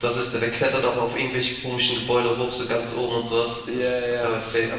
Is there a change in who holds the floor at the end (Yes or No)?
Yes